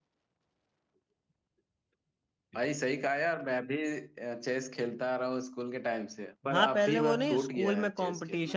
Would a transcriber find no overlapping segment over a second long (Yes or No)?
No